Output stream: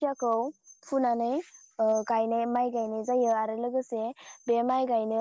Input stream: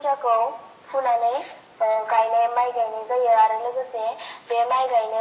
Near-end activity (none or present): none